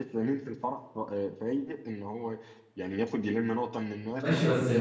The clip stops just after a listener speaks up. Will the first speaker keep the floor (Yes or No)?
No